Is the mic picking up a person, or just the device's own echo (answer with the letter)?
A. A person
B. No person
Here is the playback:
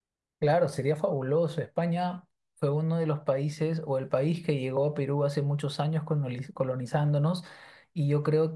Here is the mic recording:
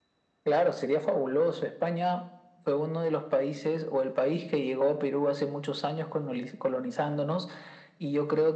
B